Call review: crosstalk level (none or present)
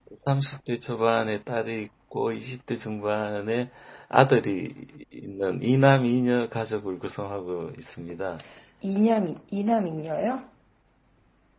none